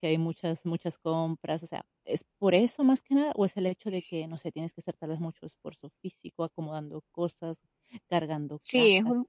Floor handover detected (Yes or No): Yes